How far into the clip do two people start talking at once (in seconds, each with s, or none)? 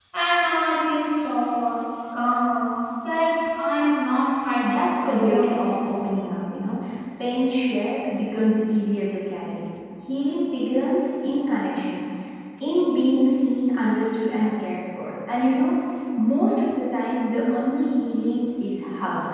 4.6 s